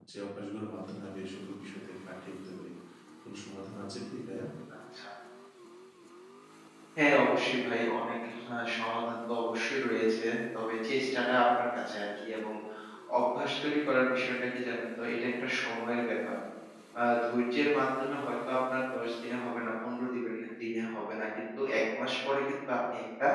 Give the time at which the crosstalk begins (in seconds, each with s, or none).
none